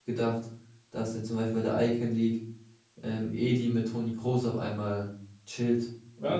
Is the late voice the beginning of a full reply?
Yes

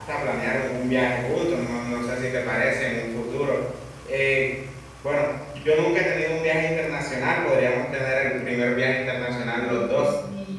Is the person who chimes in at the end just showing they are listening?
No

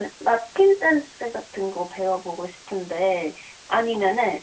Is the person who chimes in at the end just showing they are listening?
Yes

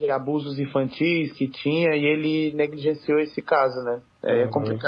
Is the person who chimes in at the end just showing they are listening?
No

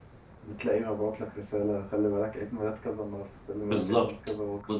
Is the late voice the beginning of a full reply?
Yes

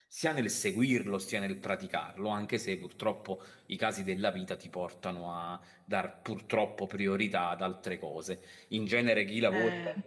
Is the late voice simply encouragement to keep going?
Yes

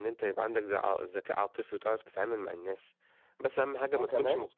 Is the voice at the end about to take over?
No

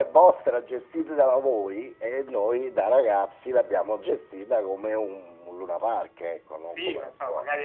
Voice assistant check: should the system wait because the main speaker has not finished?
No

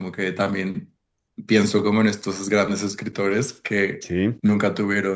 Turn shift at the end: No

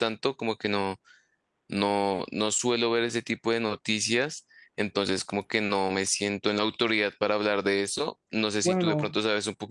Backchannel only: Yes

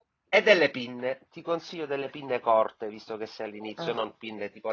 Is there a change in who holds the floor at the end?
No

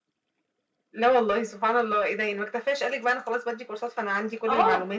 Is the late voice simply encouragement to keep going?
No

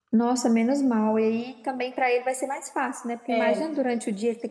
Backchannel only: Yes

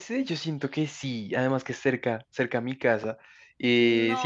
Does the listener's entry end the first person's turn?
No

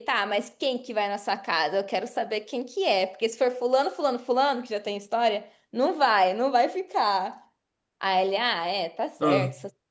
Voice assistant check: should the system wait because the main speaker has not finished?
Yes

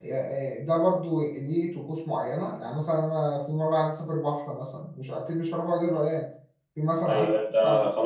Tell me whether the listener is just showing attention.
No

